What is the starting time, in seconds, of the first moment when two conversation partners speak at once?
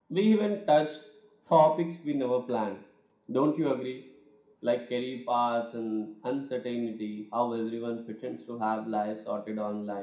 none

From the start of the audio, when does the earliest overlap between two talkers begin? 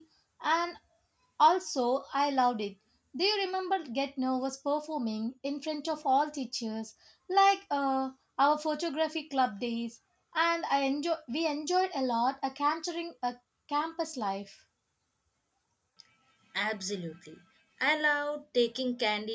none

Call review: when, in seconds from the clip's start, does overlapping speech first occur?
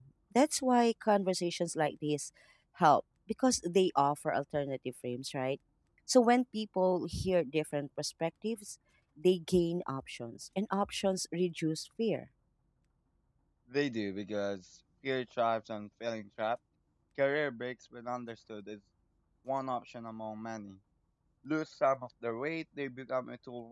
none

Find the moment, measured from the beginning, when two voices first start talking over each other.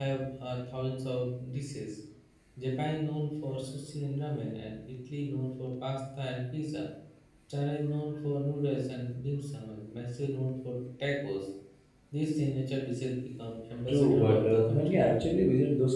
14 s

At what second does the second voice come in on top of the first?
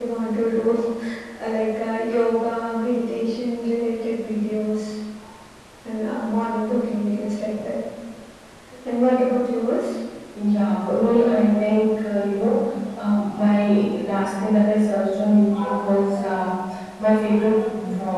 none

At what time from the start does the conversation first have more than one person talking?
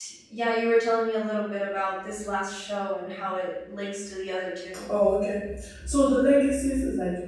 none

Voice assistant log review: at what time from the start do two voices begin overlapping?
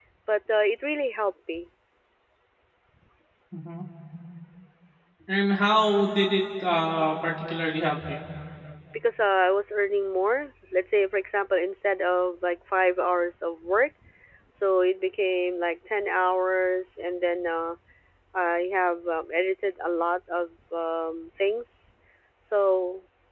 none

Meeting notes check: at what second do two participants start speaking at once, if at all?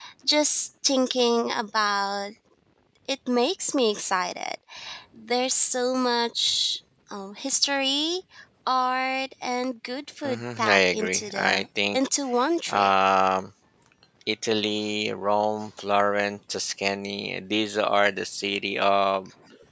10 s

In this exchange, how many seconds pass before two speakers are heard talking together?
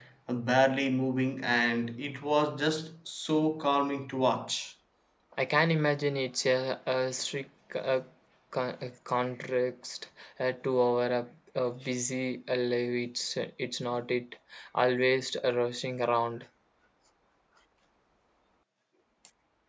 none

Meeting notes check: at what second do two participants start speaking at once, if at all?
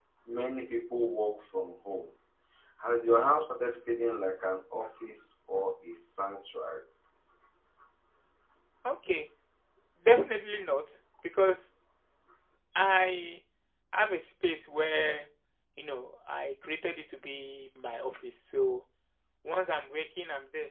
none

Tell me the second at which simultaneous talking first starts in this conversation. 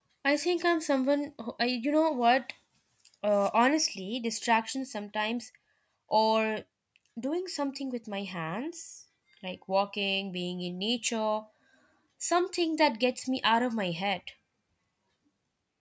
none

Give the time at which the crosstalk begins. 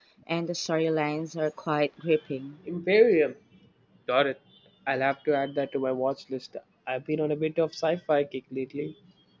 none

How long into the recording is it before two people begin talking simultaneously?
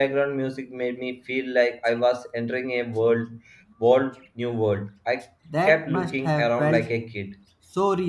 5 s

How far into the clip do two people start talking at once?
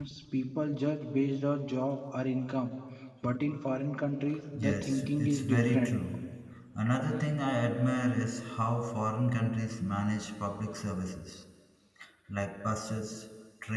5 s

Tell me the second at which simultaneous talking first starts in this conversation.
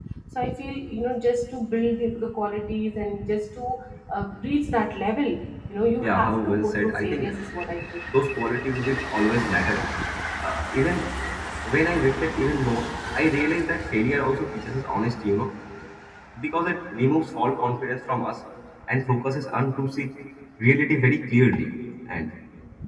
6 s

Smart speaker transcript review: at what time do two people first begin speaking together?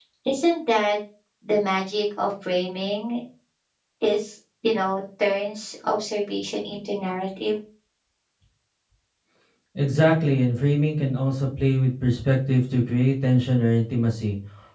none

